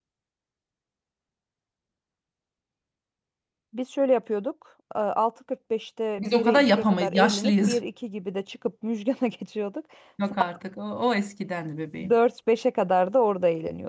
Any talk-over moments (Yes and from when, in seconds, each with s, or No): Yes, from 6.2 s